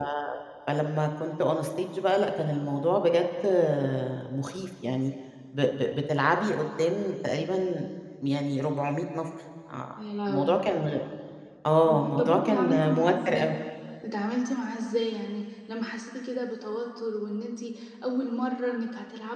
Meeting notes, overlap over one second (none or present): present